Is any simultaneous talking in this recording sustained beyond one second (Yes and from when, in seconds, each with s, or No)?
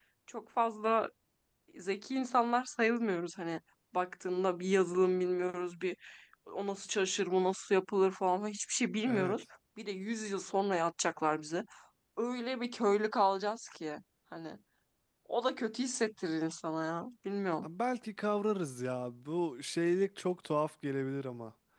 No